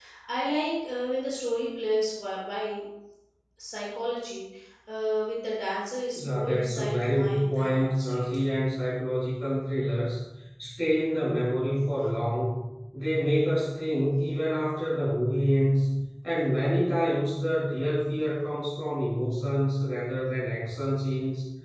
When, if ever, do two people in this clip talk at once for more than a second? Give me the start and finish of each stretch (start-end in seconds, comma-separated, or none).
6.2-8.3